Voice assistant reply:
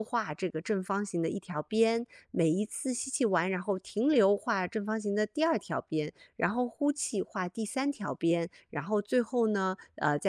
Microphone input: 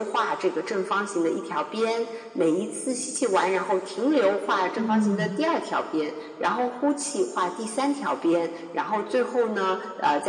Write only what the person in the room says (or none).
嗯，